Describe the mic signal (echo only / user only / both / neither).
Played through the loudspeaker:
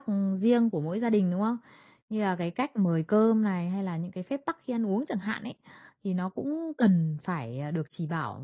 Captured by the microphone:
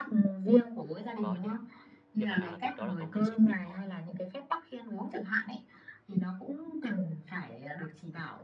both